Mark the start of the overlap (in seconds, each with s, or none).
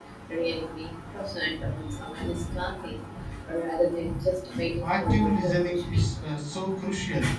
4.8 s